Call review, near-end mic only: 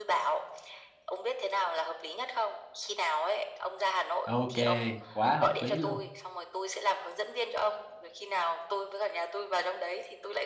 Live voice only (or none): ok quá hợp lý luôn